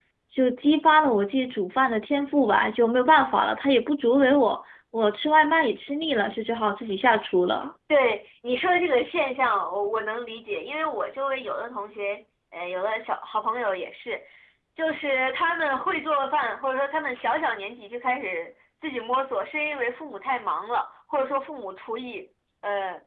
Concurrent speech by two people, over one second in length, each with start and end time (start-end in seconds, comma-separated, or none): none